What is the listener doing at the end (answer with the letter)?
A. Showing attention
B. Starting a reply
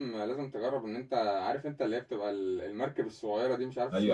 B